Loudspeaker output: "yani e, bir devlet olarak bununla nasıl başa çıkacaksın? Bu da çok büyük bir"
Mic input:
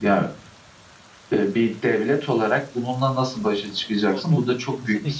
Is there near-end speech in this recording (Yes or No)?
Yes